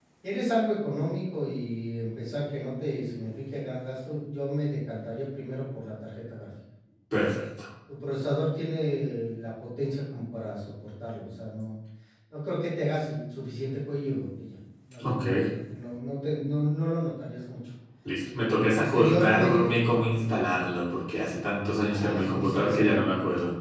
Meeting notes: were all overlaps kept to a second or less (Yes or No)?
No